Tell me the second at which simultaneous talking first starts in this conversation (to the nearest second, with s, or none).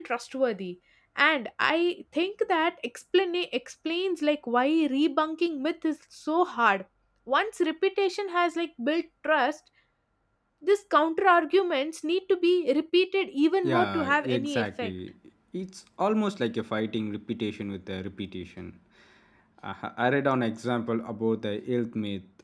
14 s